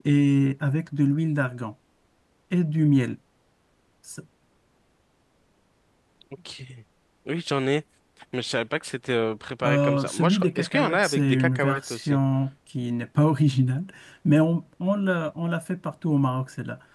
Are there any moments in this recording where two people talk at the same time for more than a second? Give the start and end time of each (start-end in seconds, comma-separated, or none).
9.6-12.2